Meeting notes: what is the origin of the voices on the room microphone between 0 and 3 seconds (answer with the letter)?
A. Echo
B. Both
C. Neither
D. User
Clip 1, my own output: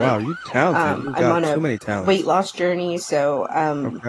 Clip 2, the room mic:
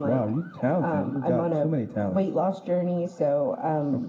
A